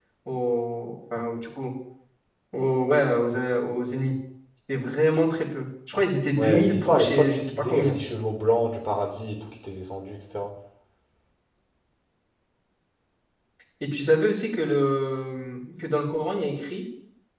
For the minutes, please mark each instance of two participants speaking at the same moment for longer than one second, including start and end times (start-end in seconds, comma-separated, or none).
6.4-8.0